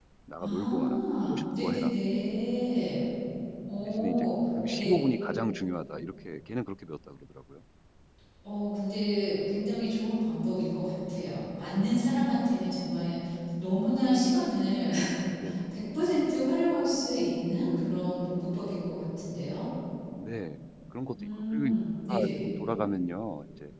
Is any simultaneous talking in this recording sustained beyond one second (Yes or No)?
Yes